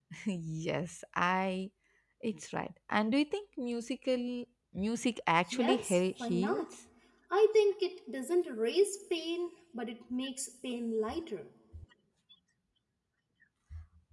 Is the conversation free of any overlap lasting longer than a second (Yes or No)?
No